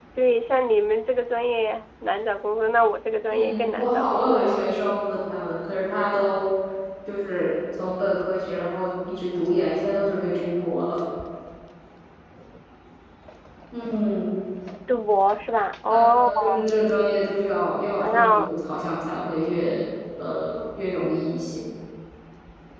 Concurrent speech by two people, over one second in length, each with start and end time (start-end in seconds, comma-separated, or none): 3.3-4.8